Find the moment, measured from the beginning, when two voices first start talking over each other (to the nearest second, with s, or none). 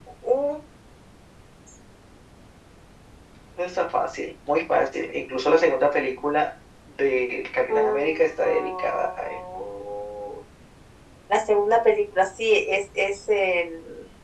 8 s